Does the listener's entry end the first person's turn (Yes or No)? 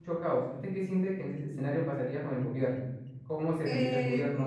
Yes